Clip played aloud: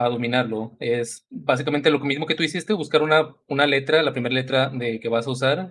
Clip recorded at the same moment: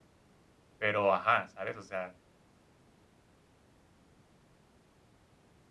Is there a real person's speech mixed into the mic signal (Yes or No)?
Yes